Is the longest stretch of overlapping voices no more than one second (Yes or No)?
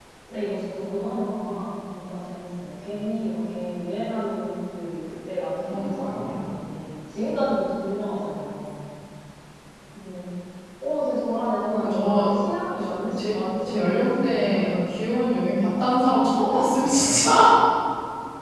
No